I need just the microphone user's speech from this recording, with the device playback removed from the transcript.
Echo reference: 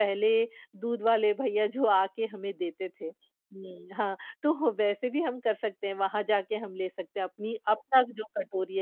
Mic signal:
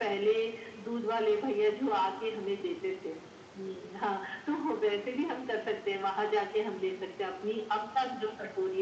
none

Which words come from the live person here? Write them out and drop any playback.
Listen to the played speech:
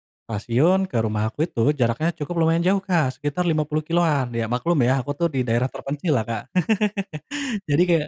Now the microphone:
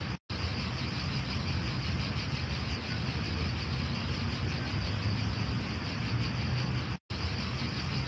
none

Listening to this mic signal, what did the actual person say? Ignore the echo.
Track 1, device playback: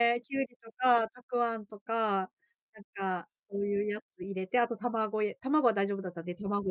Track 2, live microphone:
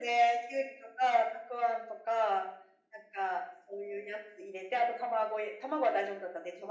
none

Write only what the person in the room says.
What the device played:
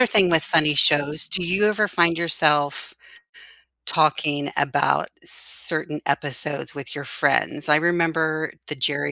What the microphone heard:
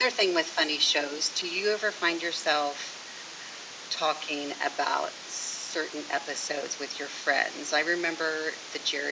none

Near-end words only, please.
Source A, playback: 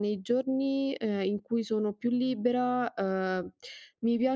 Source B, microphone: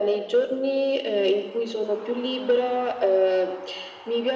none

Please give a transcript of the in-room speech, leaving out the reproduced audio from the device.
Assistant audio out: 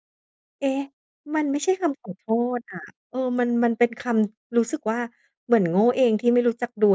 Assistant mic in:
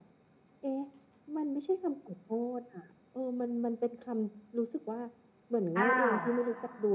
อ้าว

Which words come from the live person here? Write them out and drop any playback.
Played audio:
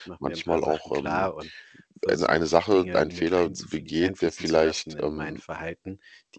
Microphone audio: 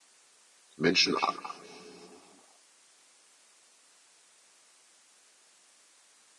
Menschen a

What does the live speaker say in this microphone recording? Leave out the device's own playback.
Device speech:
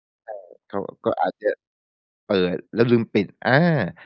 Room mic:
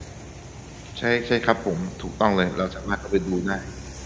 ใช่ ใช่ครับผม ถูกต้องเลย เราสามารถเข้าไปดูได้

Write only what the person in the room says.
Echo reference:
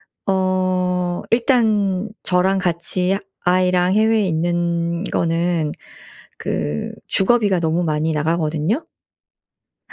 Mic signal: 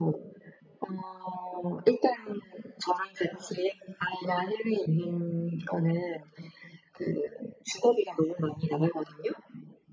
none

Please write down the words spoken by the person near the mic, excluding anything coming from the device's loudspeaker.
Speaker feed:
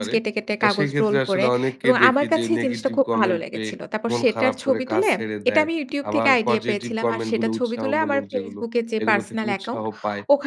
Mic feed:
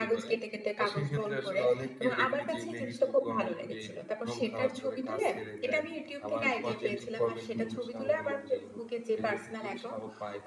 none

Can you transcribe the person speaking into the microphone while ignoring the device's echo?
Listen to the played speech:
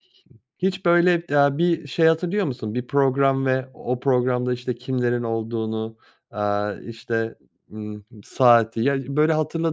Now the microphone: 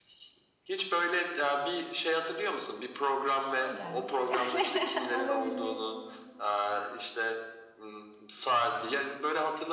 İşine gelmiş herhâlde, olabilir.

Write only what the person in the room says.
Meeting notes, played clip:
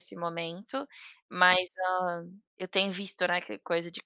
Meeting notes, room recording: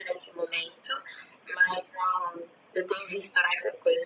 none

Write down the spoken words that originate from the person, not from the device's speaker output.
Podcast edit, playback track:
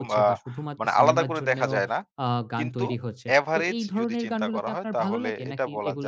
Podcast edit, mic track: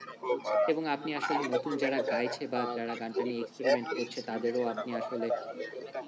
এবং আপনি আসলে নতুন যারা গাইছে বা যারা গানটা নিয়ে experiment করছে, তাদেরও আপনি আসলে

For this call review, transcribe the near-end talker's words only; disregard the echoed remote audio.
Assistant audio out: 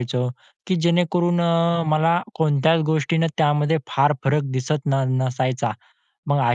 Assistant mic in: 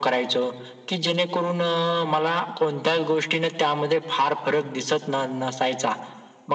none

